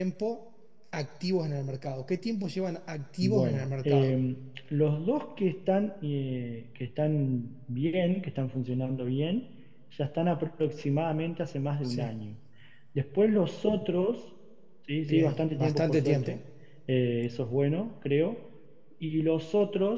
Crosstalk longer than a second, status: present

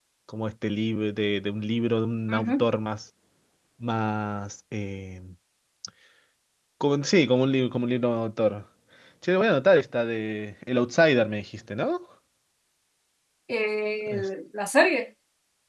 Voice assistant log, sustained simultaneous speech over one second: none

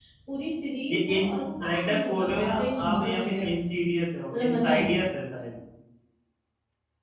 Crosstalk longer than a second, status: present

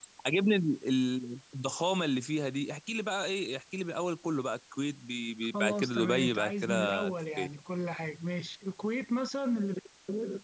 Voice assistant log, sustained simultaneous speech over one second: present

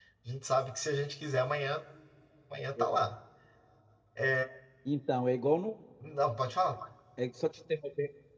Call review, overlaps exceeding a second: none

